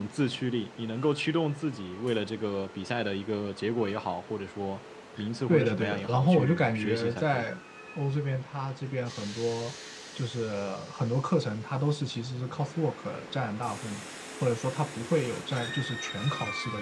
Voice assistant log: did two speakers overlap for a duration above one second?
Yes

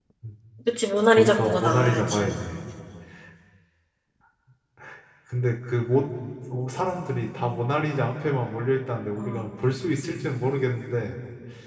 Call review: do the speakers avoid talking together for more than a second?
No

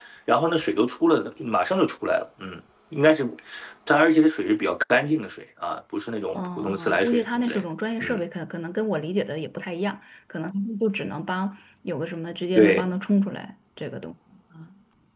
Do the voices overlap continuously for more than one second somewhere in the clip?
Yes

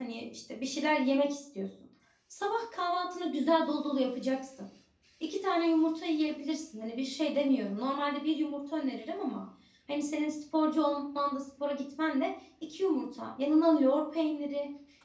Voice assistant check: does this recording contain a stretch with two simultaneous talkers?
No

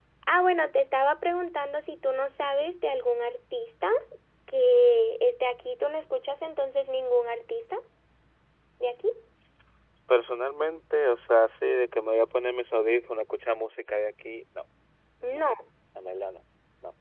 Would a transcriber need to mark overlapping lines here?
No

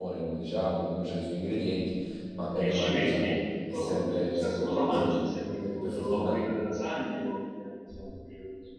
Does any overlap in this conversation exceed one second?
Yes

